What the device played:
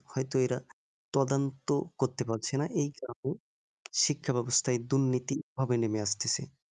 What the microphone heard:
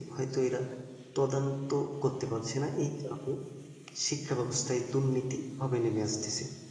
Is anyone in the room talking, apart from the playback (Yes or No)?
No